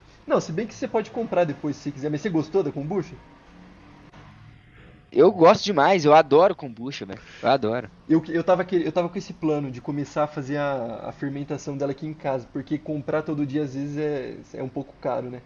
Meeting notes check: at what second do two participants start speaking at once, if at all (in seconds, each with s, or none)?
none